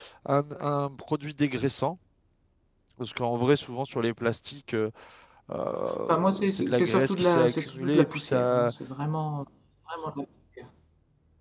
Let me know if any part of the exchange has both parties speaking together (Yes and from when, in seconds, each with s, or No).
Yes, from 6.1 s